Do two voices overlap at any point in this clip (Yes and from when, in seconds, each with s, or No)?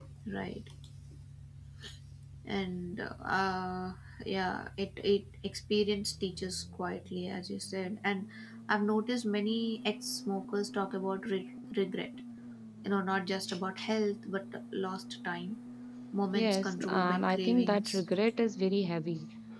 Yes, from 16.3 s